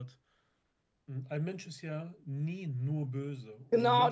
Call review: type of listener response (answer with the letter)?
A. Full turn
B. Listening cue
A